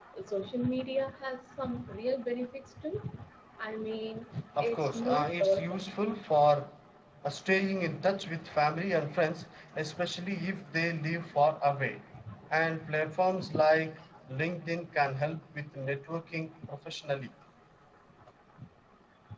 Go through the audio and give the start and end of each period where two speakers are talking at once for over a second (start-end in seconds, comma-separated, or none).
4.6-5.8